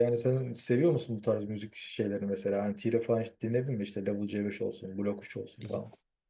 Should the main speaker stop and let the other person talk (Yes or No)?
Yes